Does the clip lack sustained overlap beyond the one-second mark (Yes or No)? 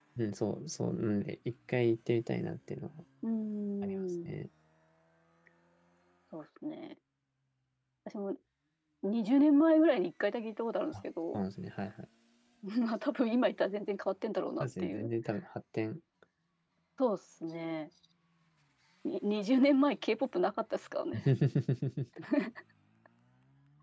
Yes